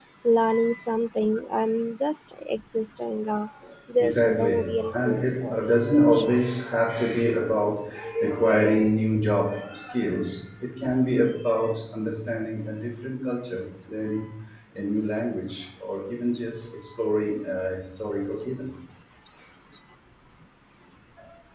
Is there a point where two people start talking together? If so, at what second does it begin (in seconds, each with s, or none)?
4.0 s